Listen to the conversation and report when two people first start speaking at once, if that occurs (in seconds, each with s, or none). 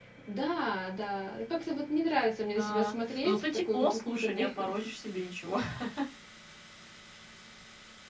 2.5 s